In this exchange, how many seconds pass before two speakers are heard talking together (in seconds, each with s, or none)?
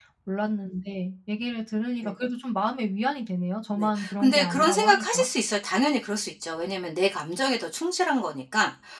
3.8 s